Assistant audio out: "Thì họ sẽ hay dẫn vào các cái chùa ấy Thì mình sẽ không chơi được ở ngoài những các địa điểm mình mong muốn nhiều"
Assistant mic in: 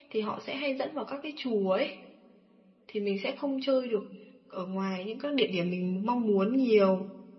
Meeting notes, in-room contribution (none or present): none